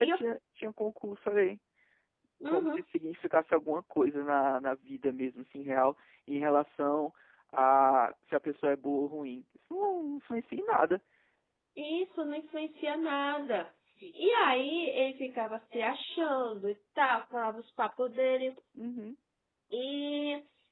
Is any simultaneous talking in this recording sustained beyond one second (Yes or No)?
No